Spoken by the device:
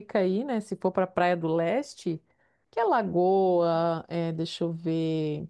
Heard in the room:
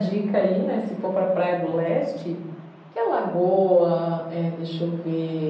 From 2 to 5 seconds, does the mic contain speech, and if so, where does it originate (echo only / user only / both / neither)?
echo only